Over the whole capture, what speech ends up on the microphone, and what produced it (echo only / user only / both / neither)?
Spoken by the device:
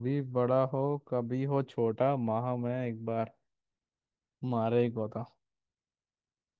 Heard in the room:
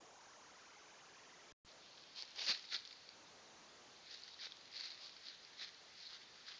neither